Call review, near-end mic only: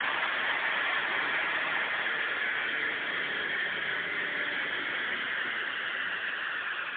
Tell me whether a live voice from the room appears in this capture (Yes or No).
No